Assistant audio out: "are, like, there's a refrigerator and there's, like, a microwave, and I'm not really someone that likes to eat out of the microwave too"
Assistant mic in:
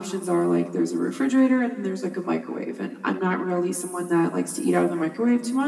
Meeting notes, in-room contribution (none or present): none